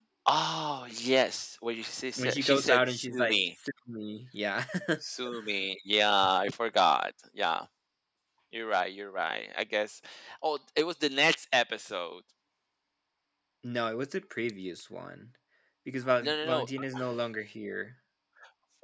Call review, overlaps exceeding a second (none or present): present